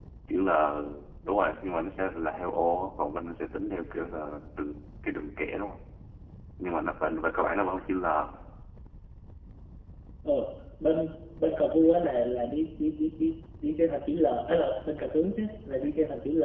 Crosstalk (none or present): none